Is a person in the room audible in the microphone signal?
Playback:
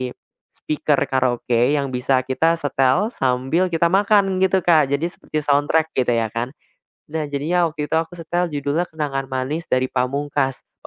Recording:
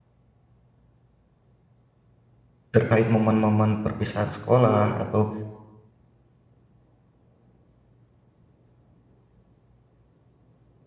Yes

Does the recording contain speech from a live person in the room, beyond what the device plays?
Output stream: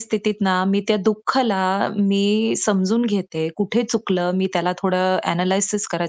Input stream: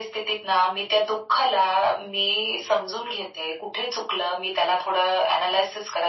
No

